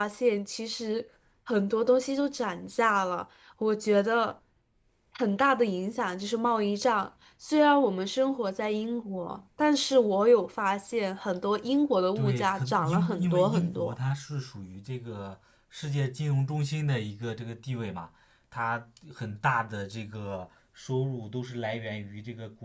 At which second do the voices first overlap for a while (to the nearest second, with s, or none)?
12 s